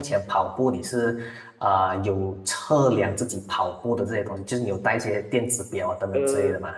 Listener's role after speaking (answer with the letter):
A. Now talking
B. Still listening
A